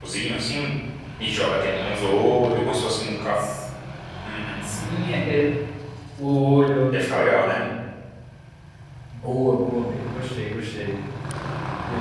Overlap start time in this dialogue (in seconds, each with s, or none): none